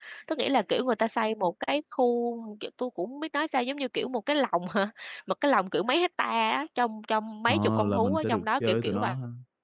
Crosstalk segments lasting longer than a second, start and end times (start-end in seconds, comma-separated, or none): 7.5-9.1